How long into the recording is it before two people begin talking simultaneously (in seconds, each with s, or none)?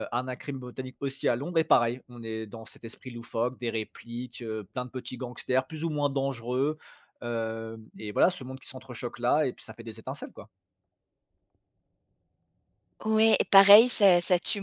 none